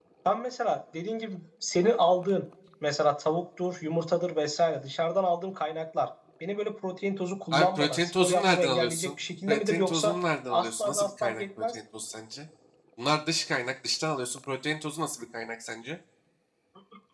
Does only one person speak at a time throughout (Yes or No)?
No